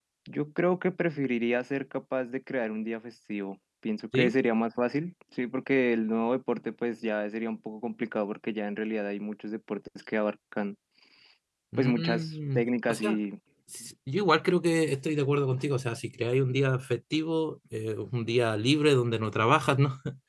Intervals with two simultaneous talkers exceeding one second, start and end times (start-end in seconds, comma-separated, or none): 11.8-13.2